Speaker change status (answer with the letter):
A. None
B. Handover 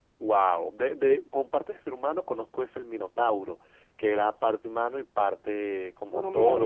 B